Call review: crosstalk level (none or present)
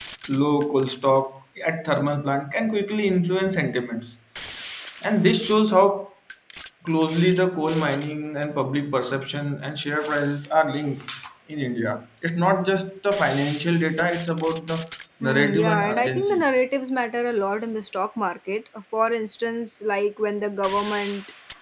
present